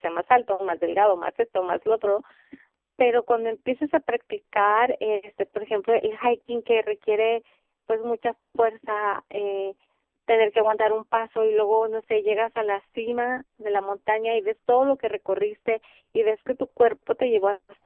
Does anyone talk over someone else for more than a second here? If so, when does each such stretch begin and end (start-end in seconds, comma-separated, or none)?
none